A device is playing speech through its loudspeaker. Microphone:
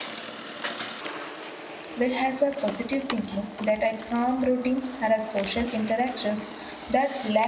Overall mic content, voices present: user only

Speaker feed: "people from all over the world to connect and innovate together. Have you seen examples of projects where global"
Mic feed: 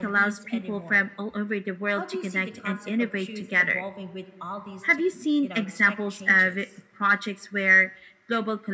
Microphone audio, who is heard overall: both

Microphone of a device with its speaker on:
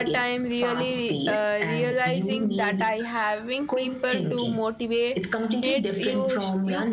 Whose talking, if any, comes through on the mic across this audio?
both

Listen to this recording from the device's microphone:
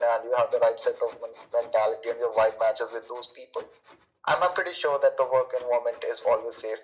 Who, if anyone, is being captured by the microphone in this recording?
echo only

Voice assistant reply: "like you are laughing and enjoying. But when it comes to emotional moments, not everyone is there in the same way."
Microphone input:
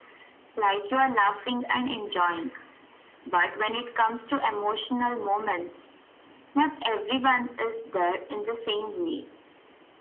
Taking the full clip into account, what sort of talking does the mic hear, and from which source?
echo only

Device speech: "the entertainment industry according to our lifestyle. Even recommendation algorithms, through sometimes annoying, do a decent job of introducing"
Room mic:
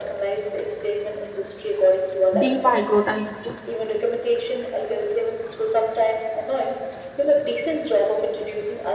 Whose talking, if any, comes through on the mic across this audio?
both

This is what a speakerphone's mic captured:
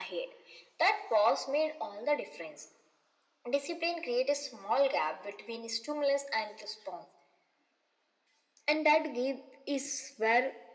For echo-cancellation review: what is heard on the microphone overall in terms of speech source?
echo only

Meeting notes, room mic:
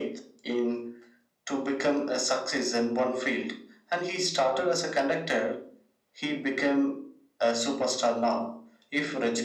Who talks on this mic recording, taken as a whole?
echo only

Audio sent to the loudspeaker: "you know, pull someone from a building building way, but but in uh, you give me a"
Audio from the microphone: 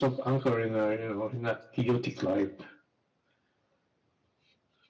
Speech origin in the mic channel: user only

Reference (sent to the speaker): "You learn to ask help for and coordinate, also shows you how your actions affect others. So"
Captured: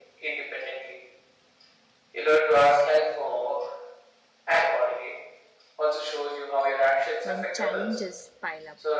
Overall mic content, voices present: both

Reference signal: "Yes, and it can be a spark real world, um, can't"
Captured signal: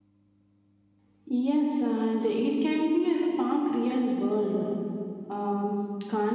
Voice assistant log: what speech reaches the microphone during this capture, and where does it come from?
echo only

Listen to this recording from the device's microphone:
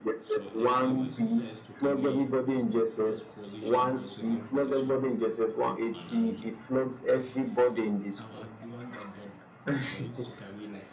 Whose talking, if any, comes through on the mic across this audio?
both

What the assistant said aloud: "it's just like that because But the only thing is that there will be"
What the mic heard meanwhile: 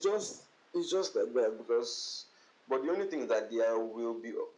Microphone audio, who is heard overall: echo only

